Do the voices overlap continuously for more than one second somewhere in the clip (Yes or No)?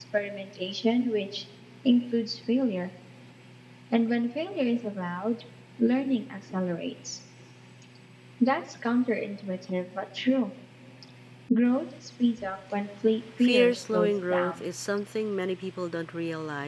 Yes